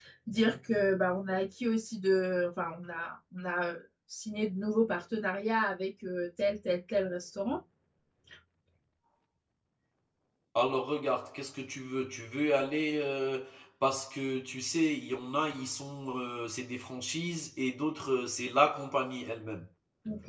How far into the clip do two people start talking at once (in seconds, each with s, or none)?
none